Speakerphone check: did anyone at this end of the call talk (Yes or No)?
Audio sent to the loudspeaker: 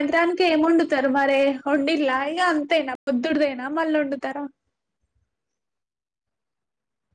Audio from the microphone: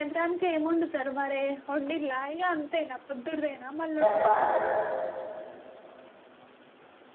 Yes